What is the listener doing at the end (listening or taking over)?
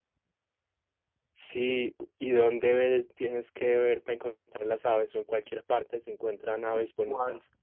taking over